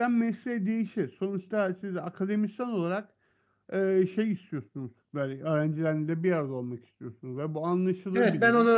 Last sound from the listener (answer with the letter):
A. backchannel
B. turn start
B